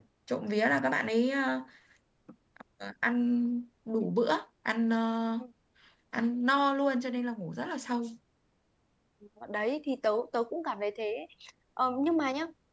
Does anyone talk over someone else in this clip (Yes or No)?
No